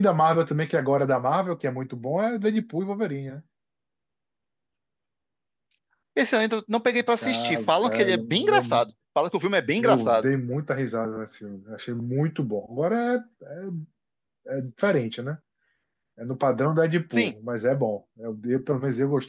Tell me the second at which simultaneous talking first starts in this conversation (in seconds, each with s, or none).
7.2 s